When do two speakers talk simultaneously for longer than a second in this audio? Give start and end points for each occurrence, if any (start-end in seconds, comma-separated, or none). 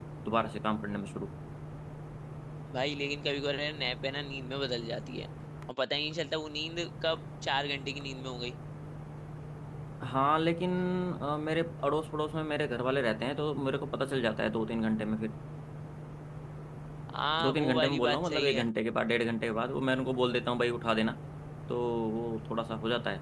17.4-18.6